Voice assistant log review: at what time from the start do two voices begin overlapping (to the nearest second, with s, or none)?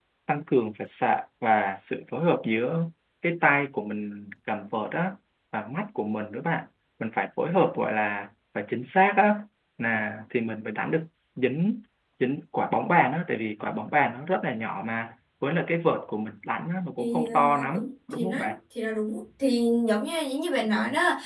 17 s